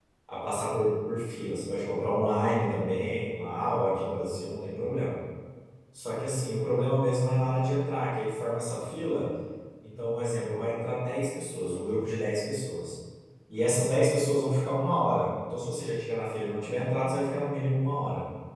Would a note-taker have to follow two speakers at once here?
No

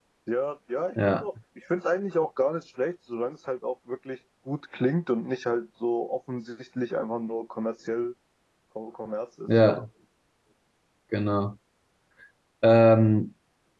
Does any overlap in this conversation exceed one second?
No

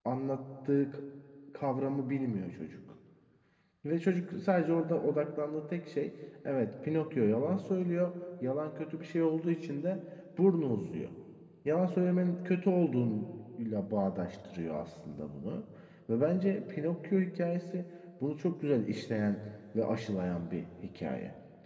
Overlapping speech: No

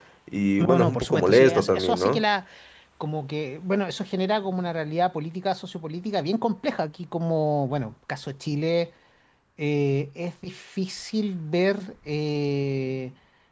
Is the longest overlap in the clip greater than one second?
Yes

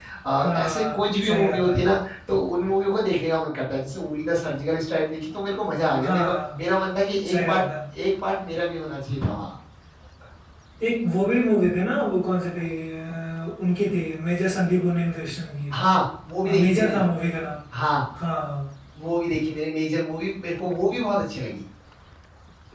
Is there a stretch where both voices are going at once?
Yes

